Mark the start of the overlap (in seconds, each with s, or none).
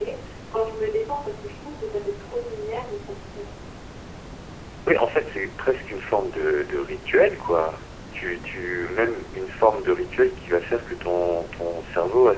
none